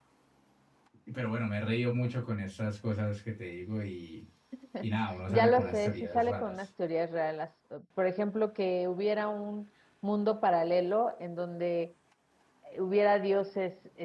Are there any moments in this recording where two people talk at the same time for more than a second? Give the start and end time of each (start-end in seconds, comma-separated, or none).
5.3-6.6